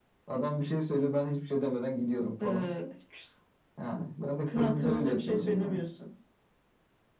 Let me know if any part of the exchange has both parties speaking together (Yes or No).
Yes